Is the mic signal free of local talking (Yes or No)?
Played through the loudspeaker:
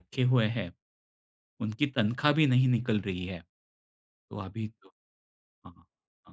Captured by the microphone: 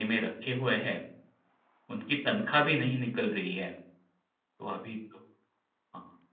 Yes